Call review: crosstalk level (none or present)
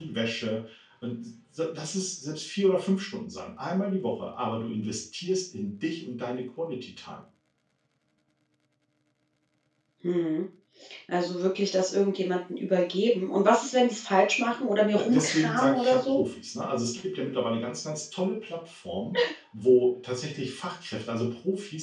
present